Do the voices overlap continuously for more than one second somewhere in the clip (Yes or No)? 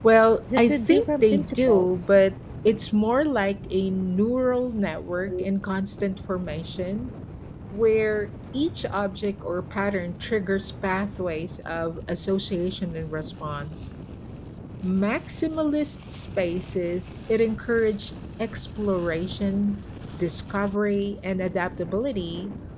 Yes